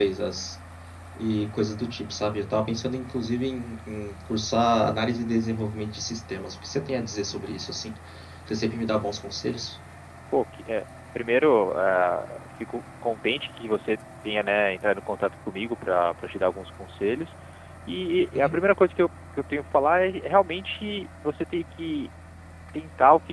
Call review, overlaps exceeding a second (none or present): none